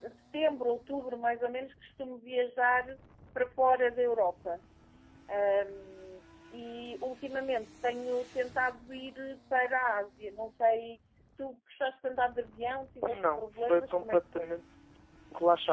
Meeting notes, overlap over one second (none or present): present